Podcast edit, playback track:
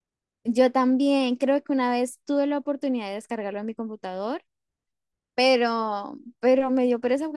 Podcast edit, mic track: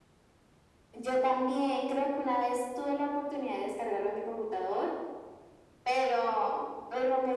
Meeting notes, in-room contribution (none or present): none